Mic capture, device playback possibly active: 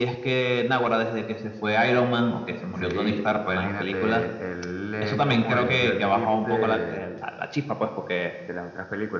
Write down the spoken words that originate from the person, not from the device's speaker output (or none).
none